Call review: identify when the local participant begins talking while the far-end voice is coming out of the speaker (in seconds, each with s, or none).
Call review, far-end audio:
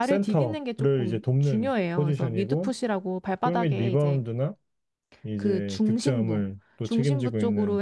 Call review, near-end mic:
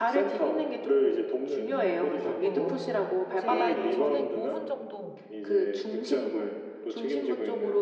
1.7 s